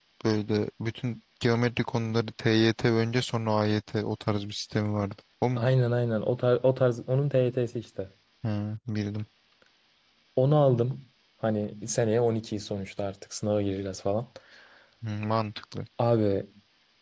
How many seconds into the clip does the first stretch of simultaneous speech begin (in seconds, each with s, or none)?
none